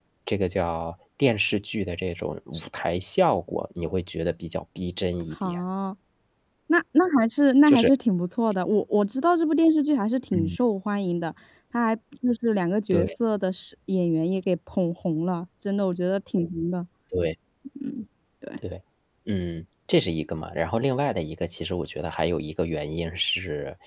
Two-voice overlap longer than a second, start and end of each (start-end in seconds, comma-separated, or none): none